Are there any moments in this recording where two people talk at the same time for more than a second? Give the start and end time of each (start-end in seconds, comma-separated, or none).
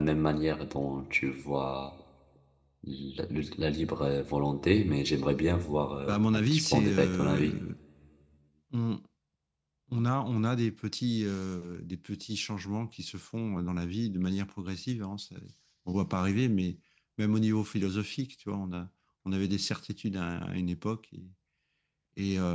6.1-7.6